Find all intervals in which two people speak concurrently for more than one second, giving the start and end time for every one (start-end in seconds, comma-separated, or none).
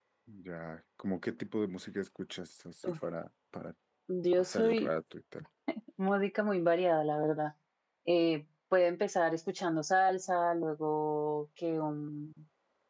none